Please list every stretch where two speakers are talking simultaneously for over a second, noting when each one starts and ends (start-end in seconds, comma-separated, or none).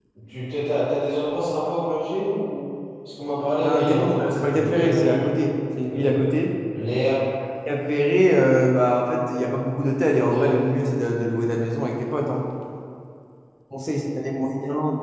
3.6-5.3